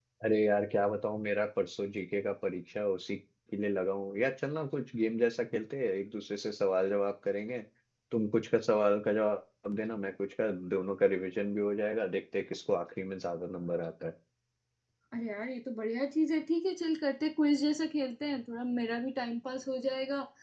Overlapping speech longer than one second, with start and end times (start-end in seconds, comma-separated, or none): none